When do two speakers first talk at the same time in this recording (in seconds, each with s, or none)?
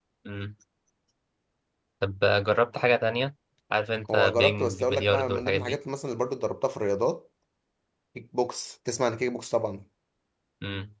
4.1 s